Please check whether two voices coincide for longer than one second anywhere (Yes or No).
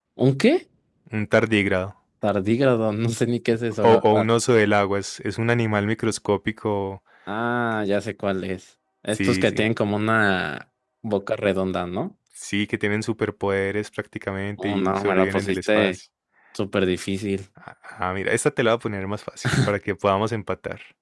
Yes